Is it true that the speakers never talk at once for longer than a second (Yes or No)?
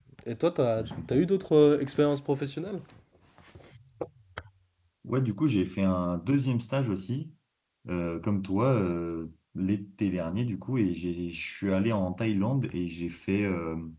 Yes